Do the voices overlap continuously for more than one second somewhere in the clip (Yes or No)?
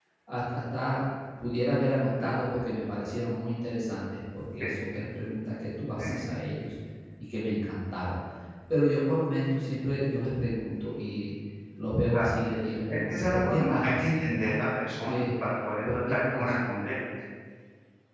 Yes